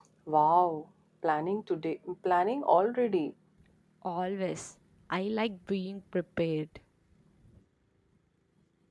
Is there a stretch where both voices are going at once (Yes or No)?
No